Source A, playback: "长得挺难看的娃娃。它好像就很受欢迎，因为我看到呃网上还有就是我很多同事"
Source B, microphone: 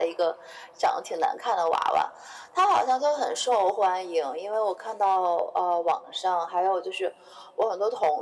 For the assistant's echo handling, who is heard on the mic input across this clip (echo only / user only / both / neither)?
echo only